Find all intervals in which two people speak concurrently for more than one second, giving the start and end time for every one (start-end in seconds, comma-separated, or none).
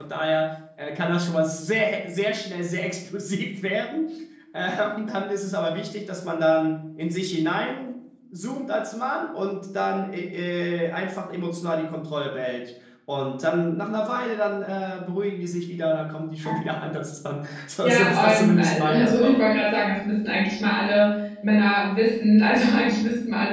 17.8-19.6